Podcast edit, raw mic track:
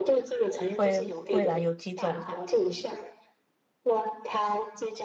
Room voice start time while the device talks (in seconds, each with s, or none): 0.7 s